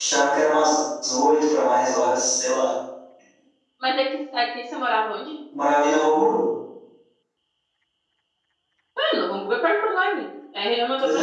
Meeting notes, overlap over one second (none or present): none